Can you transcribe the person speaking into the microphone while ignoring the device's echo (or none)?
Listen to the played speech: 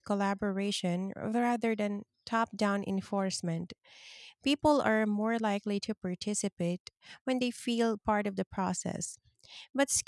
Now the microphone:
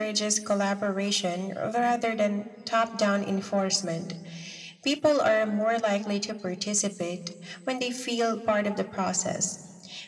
none